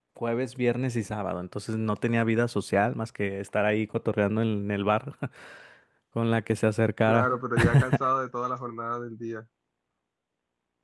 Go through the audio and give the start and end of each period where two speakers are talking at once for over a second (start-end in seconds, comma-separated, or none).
none